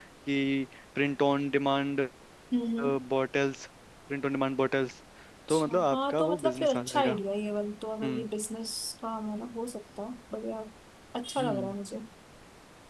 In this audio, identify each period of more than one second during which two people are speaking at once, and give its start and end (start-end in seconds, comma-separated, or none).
5.5-7.2